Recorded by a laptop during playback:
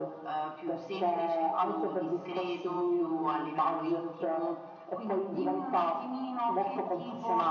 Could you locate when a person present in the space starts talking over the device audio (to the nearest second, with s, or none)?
none